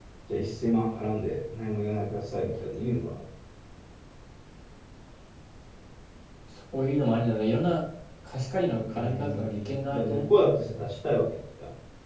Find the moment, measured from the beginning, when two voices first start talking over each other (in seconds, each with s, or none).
8.8 s